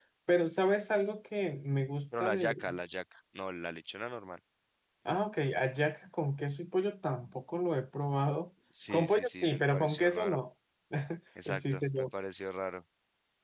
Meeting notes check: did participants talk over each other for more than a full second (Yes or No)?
Yes